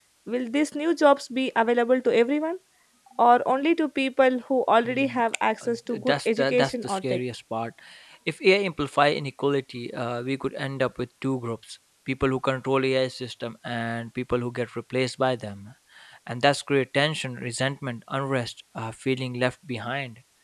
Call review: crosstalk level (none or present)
present